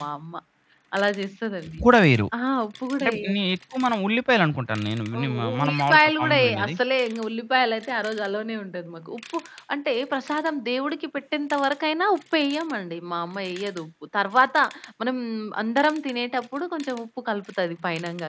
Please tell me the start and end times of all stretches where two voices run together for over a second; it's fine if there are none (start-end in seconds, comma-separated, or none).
5.2-6.7